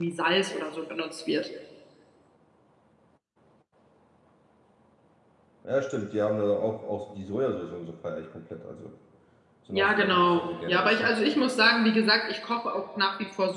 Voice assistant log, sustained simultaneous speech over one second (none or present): present